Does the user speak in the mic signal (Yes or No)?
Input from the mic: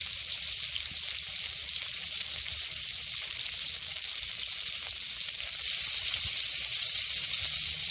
No